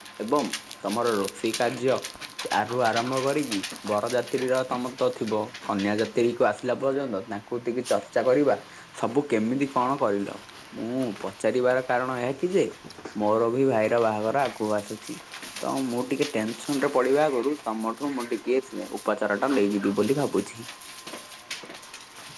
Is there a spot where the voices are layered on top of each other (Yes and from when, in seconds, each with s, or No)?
No